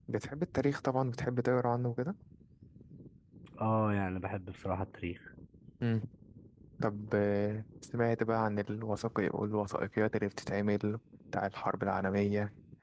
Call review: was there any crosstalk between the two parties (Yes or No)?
No